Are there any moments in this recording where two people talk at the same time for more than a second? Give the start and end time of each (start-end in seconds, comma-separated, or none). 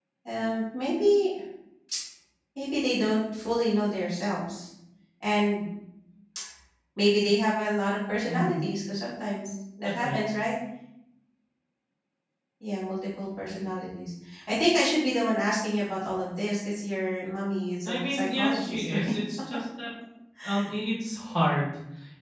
17.8-19.1